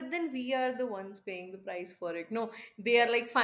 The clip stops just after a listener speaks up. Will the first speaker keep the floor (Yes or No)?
Yes